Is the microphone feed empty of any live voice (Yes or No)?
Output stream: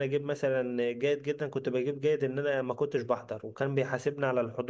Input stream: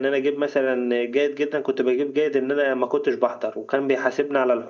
Yes